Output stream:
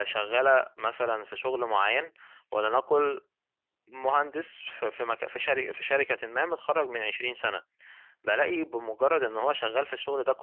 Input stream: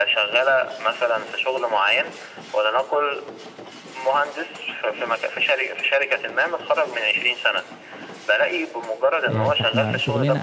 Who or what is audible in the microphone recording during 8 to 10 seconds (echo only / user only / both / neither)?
both